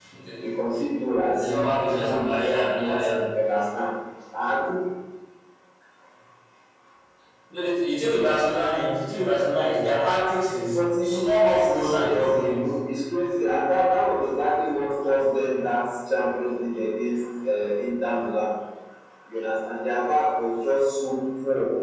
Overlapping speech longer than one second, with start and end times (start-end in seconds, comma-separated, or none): 1.4-3.1, 10.5-12.6